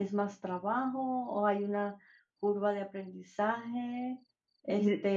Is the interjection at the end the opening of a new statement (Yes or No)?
No